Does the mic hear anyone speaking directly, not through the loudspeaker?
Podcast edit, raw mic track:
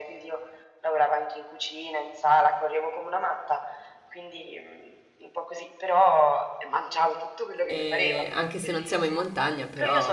Yes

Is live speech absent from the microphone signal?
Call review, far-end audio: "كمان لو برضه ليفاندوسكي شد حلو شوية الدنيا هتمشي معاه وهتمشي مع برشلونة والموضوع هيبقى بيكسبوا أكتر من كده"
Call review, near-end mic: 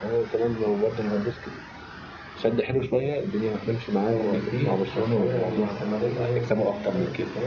No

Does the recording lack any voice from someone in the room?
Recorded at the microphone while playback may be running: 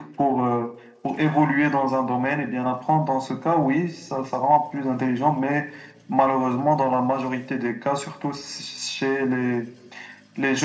Yes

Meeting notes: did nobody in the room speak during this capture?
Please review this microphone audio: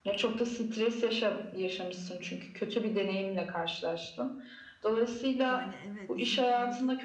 No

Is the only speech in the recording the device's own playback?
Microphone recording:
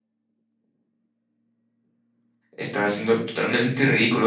No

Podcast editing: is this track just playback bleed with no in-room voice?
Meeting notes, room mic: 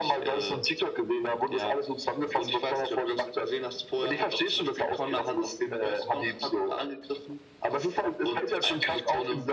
Yes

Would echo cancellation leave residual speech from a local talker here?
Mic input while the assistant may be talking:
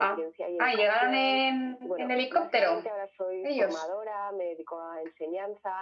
Yes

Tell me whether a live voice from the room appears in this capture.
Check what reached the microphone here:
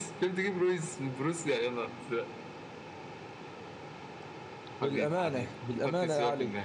Yes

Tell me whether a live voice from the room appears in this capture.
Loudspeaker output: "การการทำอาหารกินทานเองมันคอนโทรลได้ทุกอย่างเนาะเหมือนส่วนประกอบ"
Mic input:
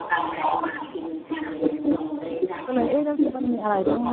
Yes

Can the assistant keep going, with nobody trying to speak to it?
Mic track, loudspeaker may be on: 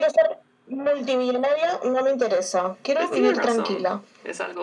No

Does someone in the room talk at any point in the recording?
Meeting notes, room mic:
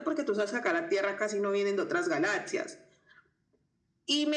No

